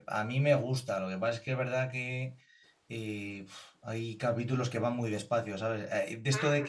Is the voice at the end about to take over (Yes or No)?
No